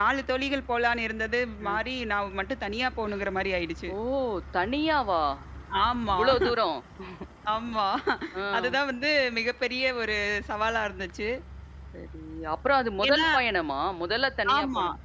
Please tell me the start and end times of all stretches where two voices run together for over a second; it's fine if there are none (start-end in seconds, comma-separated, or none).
none